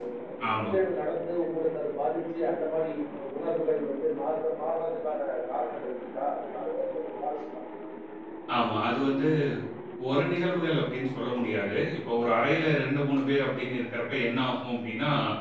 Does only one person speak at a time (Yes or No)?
Yes